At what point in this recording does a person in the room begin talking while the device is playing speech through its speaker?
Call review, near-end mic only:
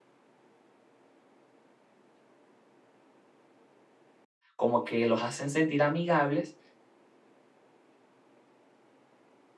4.6 s

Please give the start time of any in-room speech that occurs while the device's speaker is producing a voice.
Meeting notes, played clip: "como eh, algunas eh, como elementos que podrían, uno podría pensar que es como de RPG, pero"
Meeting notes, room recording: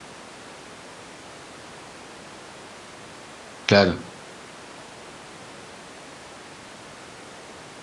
3.7 s

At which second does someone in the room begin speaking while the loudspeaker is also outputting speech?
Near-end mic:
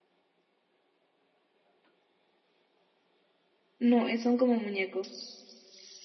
3.8 s

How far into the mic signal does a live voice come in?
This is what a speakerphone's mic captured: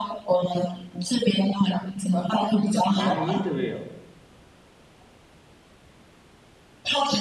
2.9 s

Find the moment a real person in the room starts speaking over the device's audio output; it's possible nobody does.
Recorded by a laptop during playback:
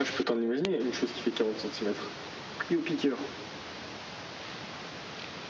none

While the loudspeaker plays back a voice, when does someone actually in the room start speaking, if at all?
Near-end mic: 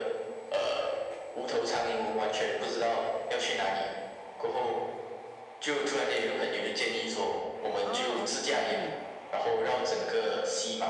7.8 s

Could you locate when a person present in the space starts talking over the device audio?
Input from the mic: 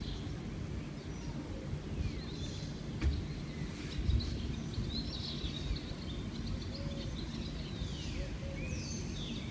none

